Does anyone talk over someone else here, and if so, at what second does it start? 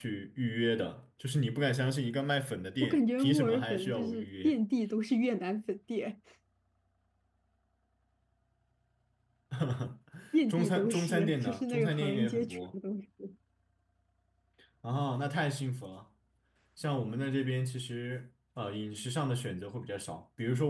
3 s

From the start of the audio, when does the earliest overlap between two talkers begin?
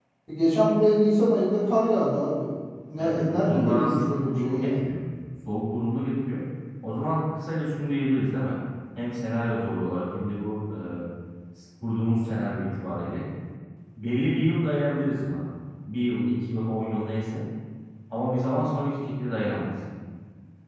3 s

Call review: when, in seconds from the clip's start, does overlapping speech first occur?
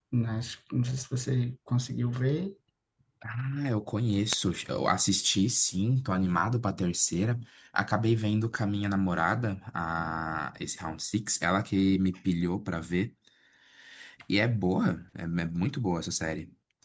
none

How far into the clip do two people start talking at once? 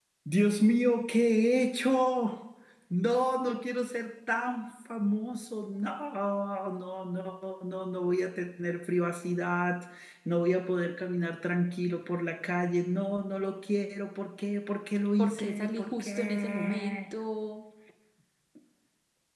15 s

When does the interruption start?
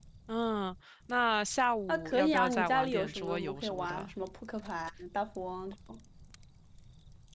2 s

